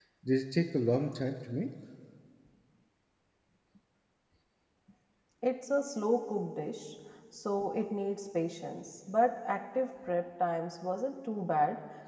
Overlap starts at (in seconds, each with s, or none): none